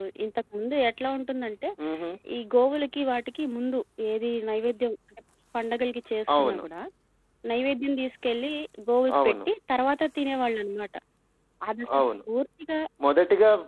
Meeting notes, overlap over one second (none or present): none